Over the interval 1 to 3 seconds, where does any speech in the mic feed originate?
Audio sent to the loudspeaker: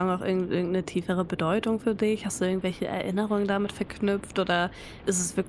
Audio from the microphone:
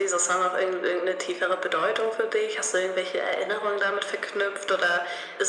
echo only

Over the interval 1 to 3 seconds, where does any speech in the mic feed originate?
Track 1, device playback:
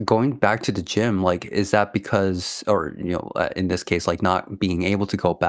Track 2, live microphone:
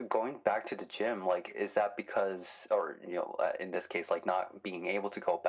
echo only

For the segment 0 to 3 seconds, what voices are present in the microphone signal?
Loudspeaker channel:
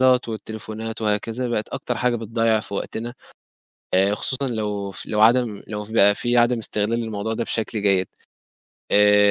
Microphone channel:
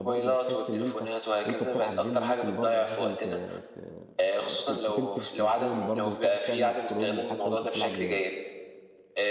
both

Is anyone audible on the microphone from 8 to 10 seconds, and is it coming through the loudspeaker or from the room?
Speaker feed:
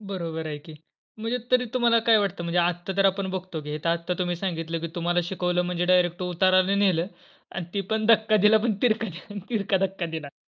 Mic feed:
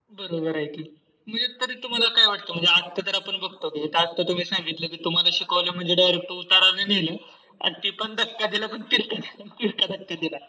echo only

